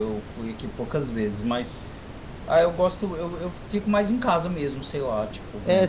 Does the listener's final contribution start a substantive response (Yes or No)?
Yes